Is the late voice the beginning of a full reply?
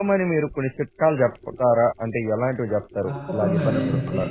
Yes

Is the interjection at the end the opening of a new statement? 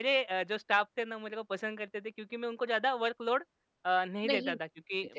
No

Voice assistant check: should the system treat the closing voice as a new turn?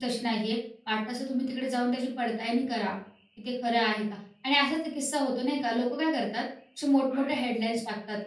No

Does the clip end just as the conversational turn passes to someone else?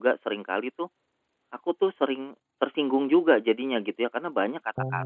No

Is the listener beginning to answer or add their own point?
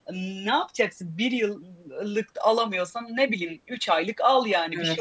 Yes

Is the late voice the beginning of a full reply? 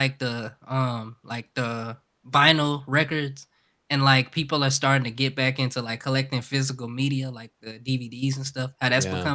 No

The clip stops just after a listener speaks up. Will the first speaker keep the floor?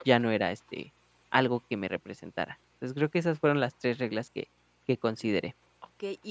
No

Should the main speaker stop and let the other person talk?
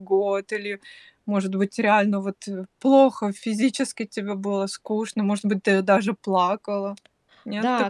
Yes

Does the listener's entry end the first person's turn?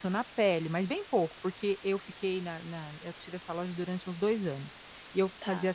No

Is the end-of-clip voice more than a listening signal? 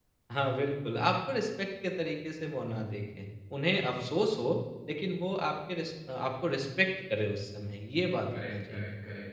Yes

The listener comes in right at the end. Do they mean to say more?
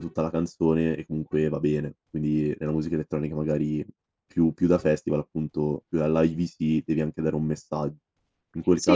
Yes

